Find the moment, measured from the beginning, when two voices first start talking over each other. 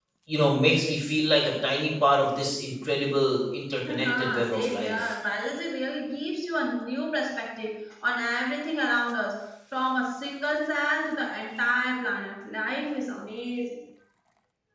4 s

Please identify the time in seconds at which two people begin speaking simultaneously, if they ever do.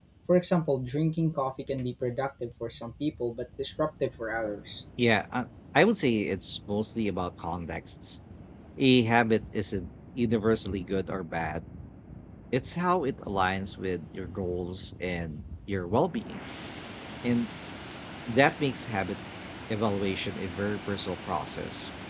none

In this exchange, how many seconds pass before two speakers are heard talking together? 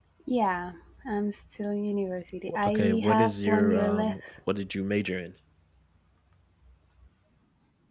2 s

